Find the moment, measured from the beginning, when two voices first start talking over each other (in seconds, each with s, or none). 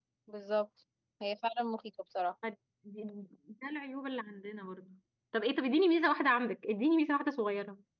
none